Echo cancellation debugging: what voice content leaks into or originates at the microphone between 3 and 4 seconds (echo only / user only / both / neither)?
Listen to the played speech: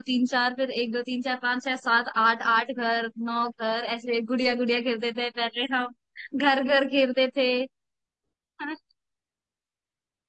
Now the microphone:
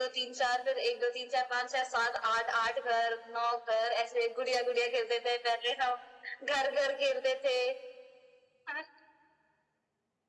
echo only